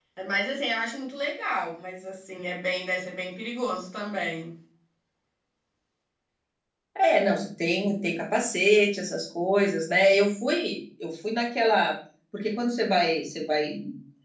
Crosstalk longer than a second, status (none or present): none